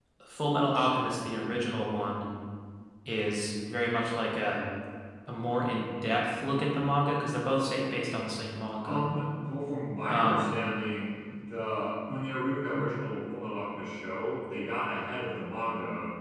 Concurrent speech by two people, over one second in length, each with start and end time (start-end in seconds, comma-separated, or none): none